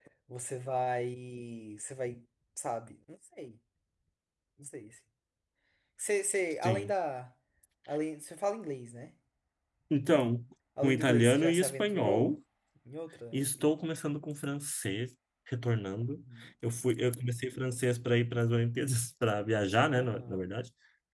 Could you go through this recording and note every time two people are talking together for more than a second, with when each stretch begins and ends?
10.8-12.3

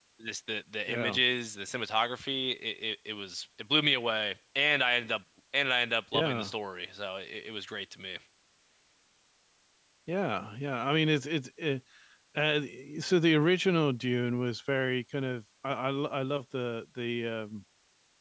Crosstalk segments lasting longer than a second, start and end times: none

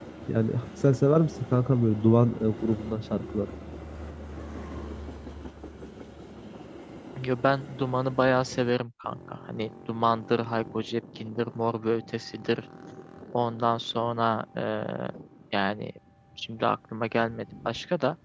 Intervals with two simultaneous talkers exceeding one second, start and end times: none

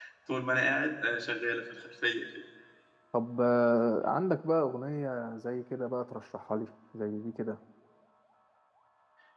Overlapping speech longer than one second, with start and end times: none

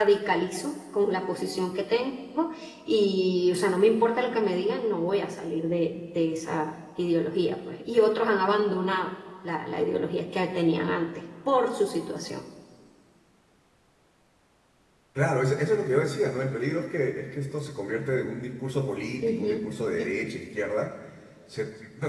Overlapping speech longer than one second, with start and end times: none

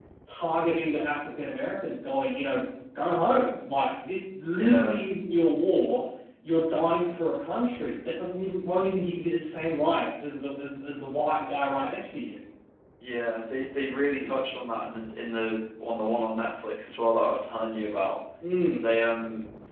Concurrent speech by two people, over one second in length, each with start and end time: none

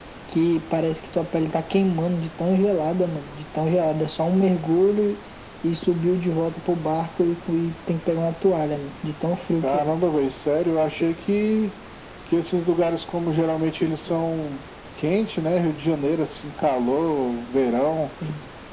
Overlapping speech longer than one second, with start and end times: none

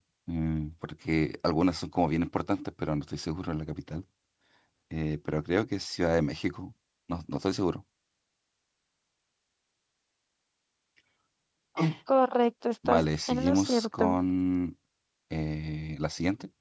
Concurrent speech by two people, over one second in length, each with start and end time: 12.9-14.2

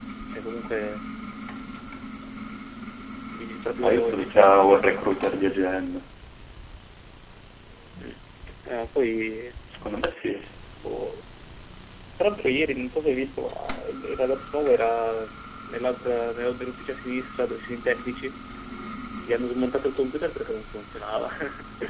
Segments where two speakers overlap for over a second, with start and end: 3.8-5.3

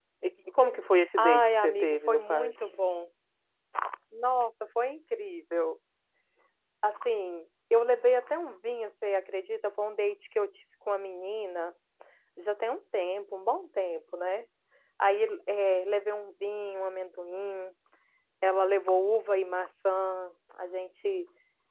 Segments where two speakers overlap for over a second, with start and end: 1.2-2.5

